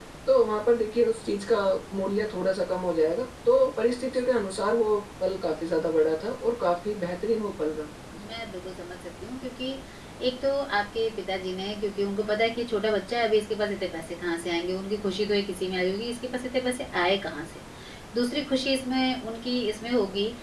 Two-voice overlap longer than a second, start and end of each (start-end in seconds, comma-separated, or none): none